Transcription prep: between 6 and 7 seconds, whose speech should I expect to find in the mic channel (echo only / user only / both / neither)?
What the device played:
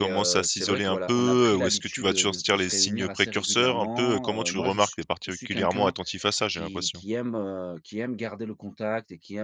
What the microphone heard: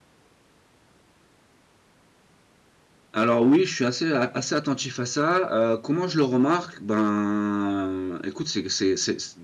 user only